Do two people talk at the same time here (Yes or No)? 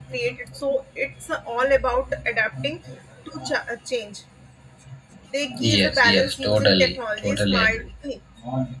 Yes